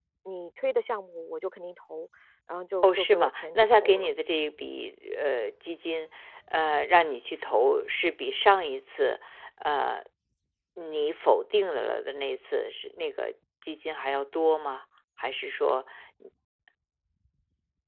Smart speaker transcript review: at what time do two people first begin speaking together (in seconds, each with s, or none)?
2.8 s